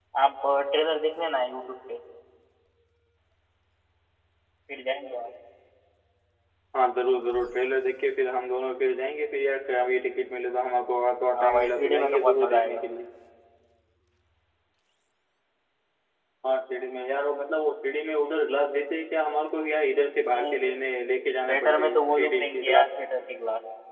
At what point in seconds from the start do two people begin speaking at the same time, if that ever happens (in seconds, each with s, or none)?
11.3 s